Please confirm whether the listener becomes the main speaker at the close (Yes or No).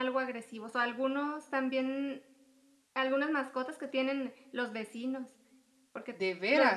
No